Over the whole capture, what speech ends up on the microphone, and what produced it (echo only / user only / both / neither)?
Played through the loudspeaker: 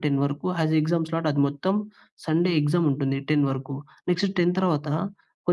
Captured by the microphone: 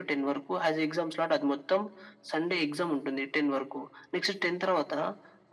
echo only